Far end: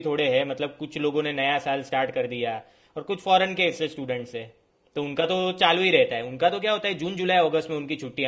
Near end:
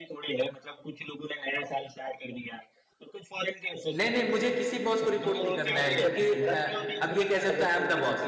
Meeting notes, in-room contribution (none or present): present